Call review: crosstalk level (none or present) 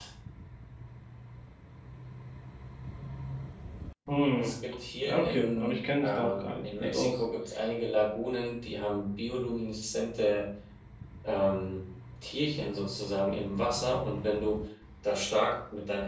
present